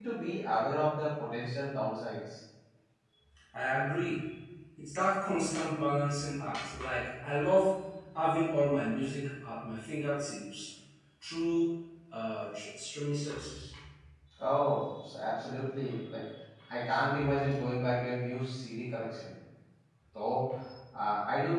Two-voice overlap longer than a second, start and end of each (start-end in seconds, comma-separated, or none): none